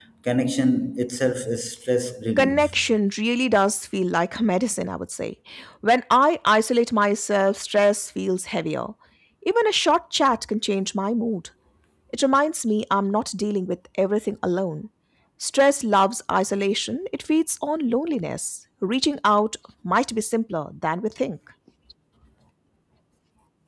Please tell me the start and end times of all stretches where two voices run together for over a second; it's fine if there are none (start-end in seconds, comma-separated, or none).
none